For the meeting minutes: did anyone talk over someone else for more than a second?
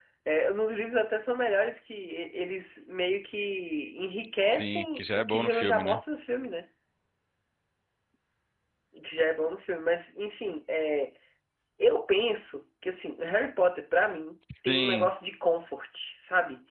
Yes, from 4.5 s

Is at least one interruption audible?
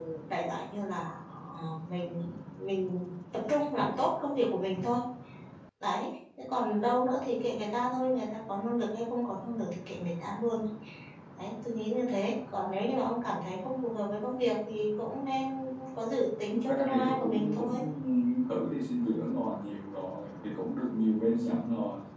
Yes, from 16.5 s

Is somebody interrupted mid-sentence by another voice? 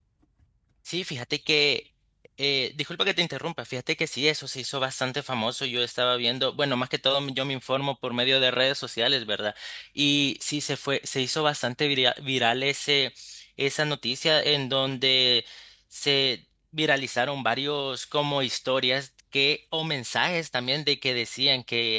No

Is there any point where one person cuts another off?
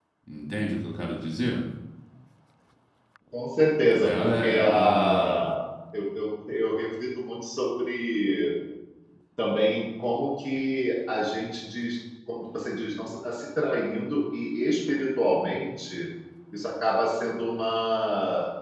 Yes, from 4.0 s

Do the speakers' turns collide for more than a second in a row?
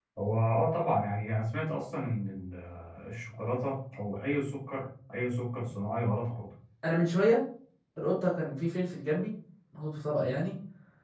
No

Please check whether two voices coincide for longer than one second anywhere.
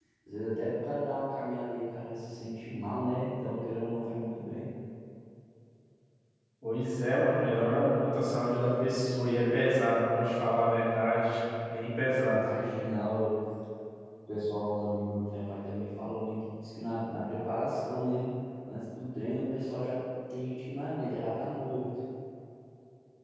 No

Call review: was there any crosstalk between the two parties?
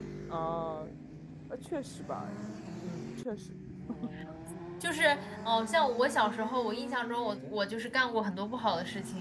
No

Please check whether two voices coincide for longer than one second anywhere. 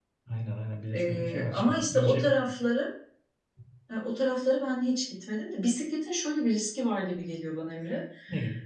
Yes, from 0.9 s

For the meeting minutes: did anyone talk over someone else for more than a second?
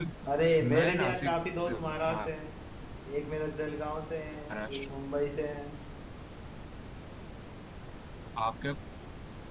Yes, from 0.8 s

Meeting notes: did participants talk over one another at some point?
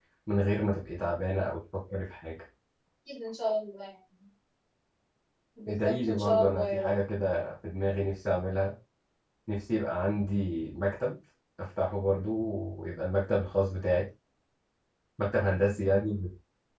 Yes, from 5.7 s

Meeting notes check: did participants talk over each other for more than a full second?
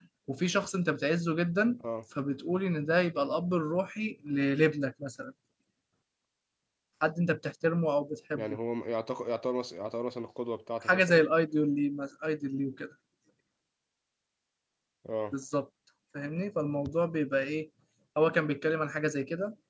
No

